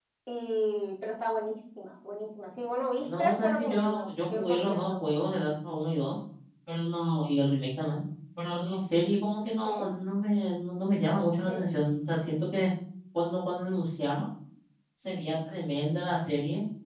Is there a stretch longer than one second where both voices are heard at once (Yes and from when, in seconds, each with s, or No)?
Yes, from 3.0 s